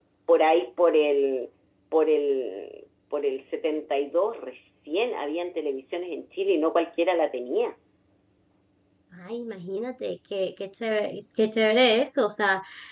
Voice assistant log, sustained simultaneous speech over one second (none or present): none